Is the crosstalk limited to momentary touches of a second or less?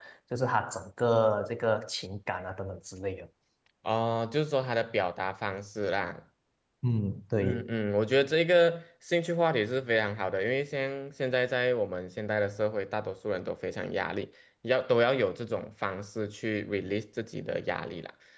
Yes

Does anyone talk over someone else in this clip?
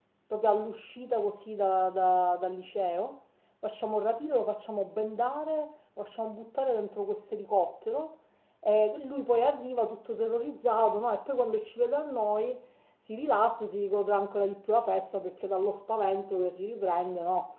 No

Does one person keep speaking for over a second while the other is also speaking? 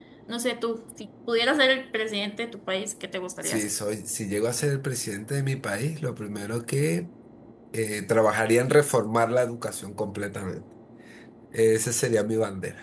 No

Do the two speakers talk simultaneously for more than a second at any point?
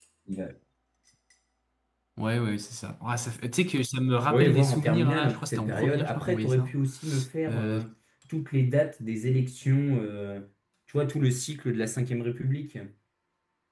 Yes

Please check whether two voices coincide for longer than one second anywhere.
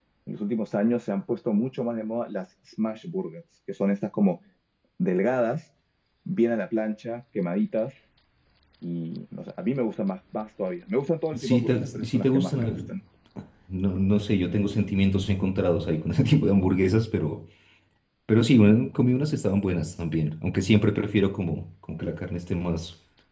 Yes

